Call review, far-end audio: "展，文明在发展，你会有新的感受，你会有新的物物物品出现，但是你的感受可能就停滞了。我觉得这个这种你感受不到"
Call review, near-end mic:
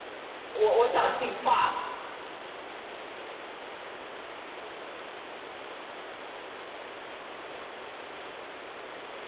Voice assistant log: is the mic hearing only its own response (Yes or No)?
No